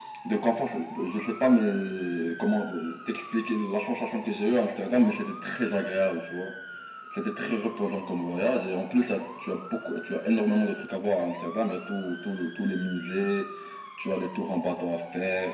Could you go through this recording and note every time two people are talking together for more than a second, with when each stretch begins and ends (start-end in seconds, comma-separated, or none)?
none